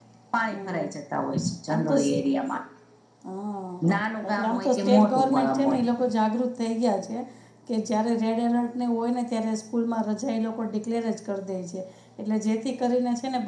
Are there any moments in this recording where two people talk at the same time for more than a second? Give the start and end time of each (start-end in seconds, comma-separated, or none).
4.3-5.8